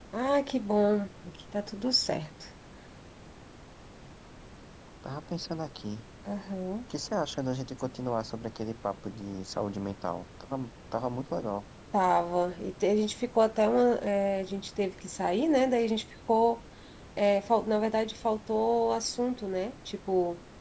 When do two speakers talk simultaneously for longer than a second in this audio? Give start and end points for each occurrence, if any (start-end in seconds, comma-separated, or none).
none